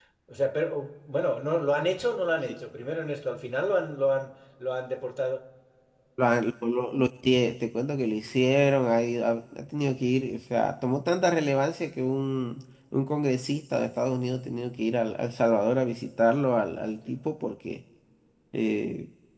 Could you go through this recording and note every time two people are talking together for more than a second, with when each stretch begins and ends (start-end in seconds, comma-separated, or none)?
none